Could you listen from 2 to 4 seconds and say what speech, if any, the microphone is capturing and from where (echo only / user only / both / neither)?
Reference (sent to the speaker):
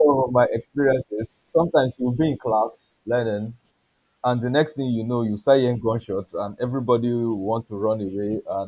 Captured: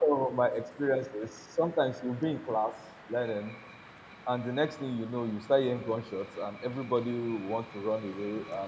echo only